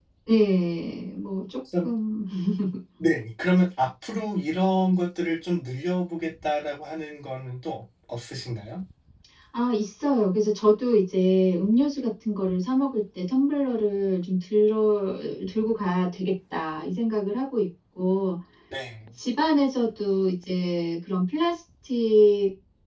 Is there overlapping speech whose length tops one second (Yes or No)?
No